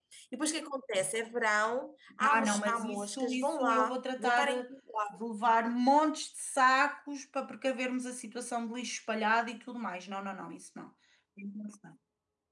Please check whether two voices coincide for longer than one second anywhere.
Yes, from 2.2 s

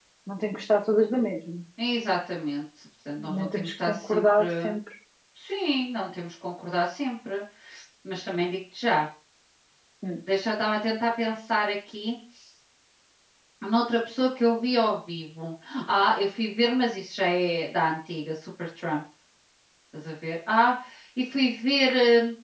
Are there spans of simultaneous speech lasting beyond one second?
Yes, from 3.2 s

